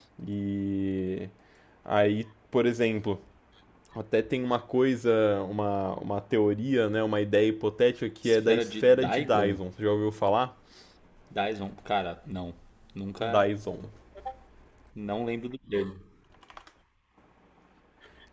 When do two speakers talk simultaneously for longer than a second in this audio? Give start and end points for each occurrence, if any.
8.2-9.6

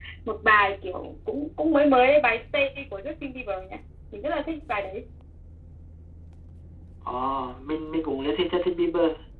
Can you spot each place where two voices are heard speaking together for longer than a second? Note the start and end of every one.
none

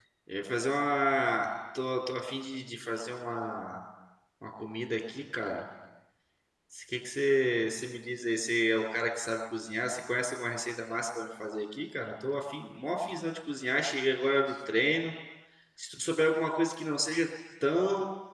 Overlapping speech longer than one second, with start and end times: none

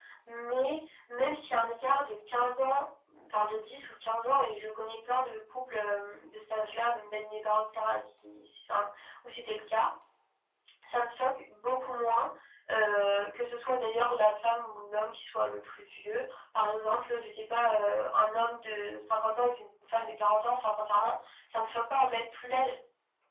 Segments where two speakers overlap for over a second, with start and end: none

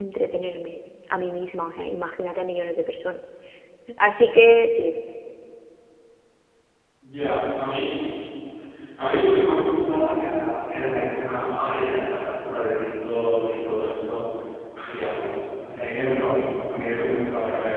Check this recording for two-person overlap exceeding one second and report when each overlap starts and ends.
none

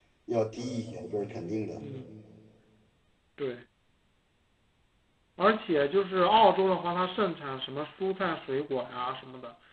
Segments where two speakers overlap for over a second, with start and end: none

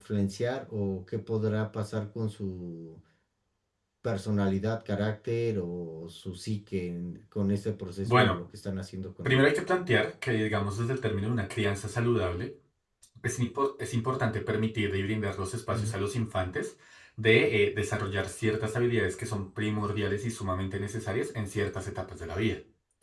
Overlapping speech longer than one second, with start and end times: none

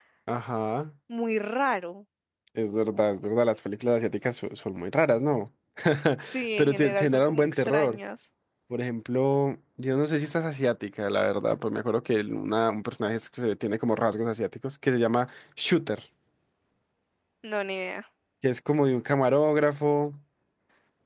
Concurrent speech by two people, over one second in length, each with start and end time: 6.6-8.0

